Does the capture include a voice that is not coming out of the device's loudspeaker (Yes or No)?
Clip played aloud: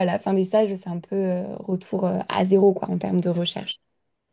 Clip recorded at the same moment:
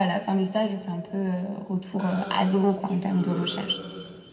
Yes